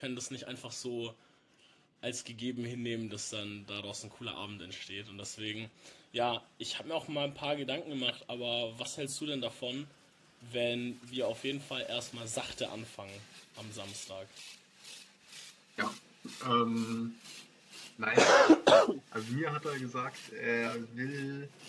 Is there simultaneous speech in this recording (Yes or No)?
No